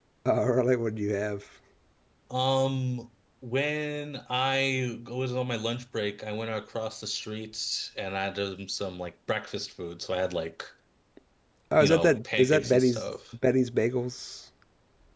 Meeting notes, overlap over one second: present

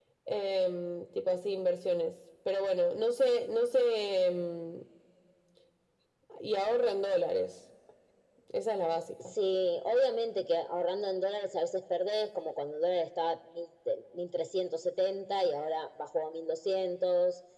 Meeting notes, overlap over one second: none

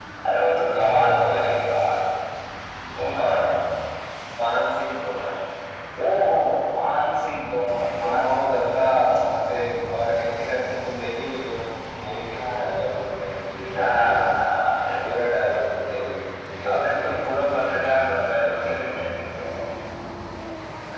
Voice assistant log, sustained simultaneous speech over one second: present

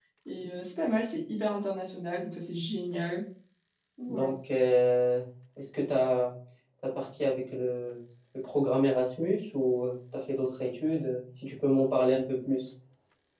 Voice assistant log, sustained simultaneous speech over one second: none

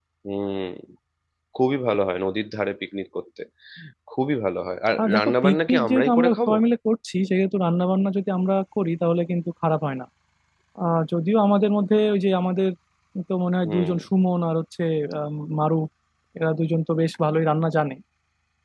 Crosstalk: present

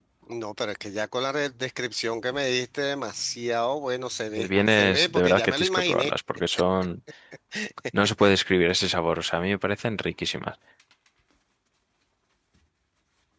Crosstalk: present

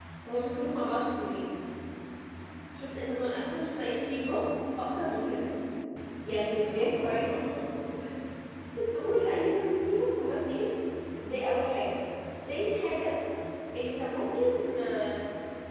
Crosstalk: present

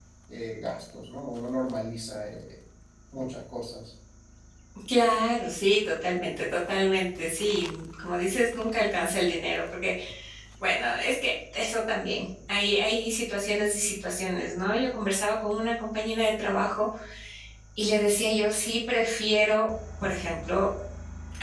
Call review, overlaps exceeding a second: none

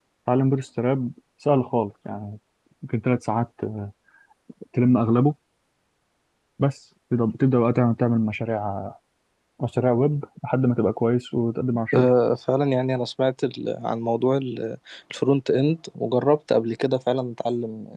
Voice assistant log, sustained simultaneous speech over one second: none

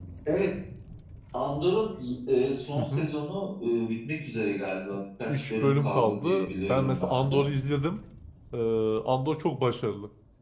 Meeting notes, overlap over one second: present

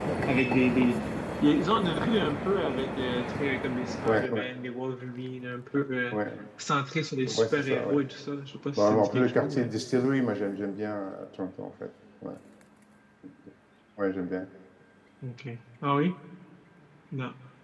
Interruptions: present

